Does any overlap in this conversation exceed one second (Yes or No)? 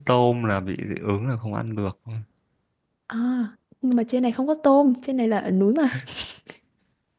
No